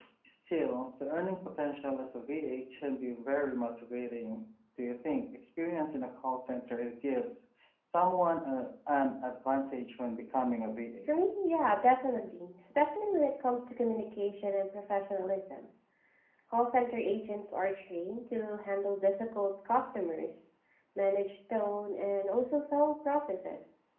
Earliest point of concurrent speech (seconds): none

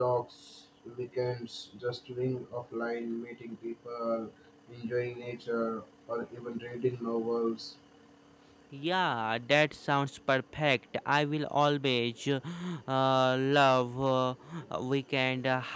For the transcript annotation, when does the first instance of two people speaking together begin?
none

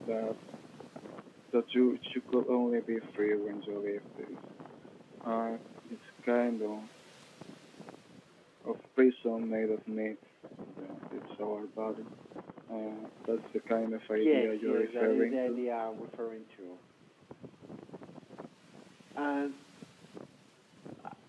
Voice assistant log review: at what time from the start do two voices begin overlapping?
14.2 s

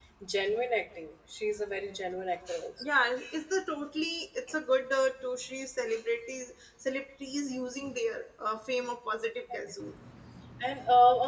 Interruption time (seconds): none

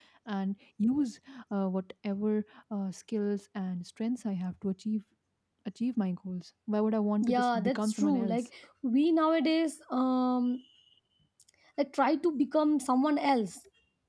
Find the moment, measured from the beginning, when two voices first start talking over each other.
7.2 s

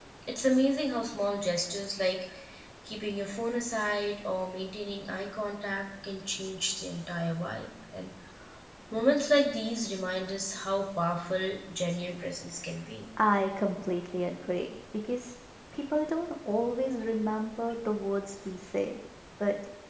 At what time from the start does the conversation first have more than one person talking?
none

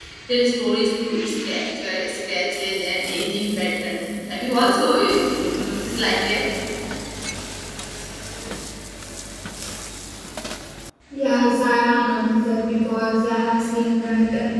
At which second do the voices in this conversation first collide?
none

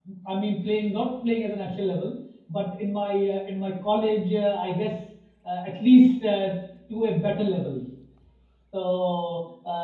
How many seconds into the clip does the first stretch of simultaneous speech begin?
none

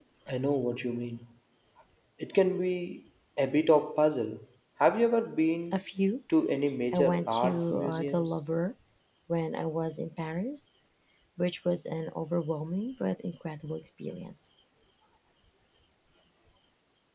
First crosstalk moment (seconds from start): 6.9 s

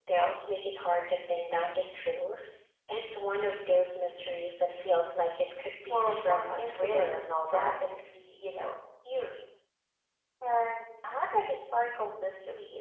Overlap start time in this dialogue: 5.9 s

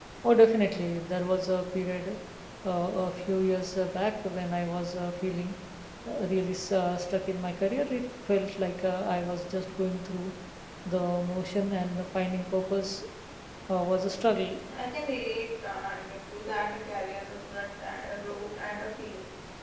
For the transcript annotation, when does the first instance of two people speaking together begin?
none

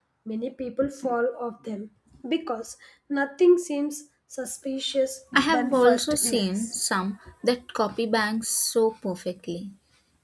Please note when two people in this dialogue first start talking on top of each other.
5.3 s

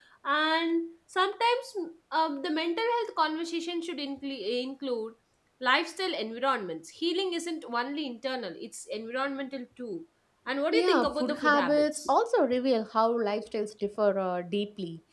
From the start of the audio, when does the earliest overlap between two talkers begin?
10.7 s

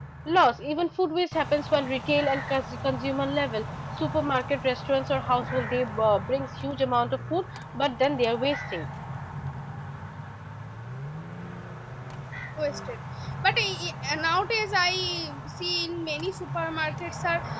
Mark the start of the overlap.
none

